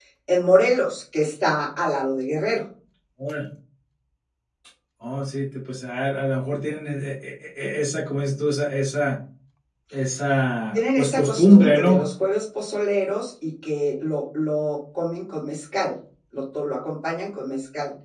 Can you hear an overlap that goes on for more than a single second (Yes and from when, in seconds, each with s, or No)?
Yes, from 10.7 s